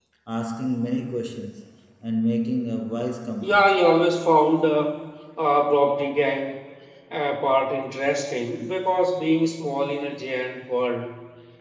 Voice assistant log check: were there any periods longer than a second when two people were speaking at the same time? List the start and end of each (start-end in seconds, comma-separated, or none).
none